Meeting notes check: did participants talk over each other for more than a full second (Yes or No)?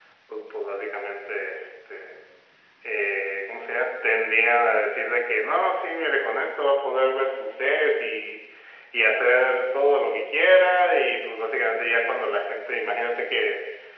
No